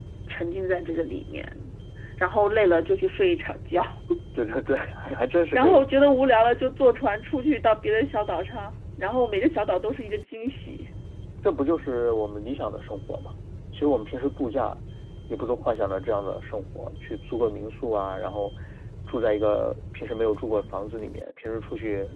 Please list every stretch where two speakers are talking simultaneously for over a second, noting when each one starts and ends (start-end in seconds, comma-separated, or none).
none